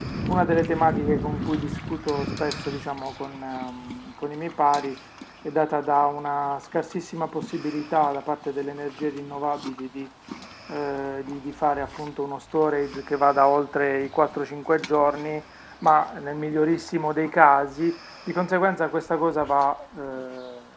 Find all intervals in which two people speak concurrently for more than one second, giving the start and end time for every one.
none

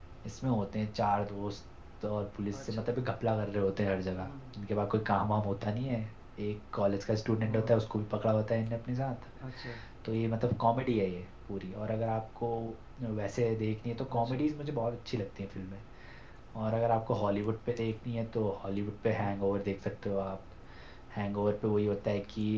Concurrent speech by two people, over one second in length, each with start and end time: none

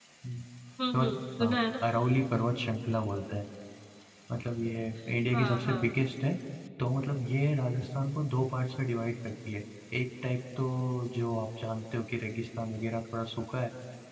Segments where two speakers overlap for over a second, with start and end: none

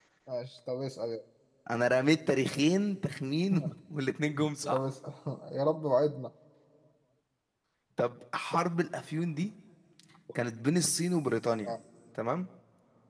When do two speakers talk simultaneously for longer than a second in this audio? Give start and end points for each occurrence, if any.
none

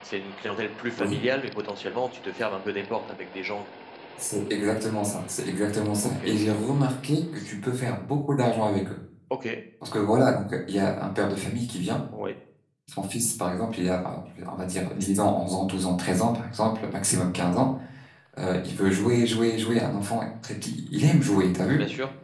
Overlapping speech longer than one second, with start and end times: none

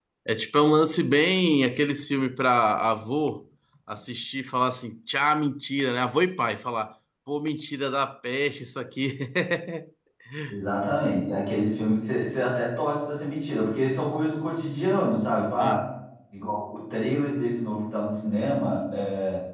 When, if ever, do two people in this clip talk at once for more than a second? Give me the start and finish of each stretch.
none

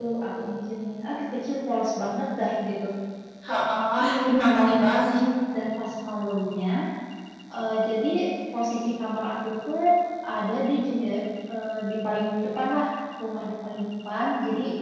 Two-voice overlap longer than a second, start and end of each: 4.0-5.2

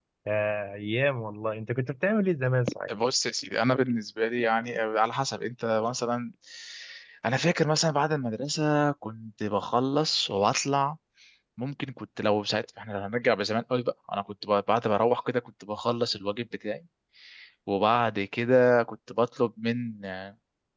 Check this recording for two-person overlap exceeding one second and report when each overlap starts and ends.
none

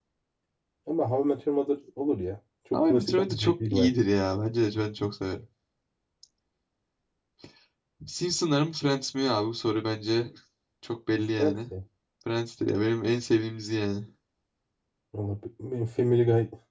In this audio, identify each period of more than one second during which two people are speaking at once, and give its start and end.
2.7-3.9

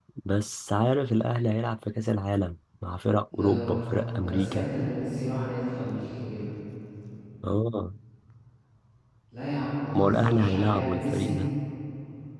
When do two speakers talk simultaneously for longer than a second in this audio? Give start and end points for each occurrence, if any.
9.9-11.4

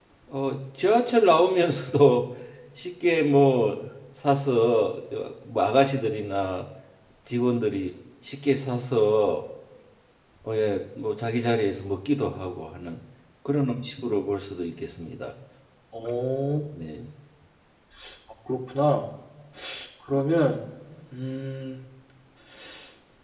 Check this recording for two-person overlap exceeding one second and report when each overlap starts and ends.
none

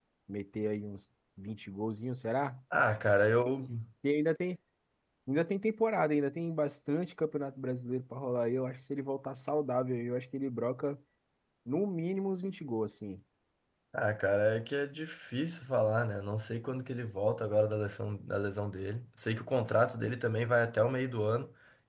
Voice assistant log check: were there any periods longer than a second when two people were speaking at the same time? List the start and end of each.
none

